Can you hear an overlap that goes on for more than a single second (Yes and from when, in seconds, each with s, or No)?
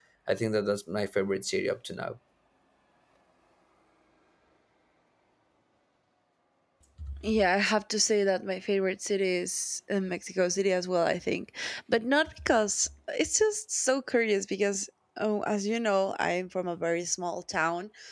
No